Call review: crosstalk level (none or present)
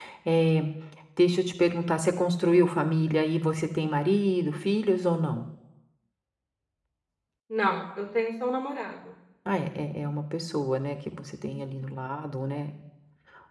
none